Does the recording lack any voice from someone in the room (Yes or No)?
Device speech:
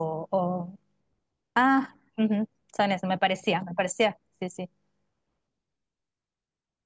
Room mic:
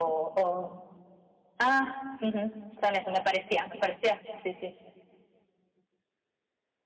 Yes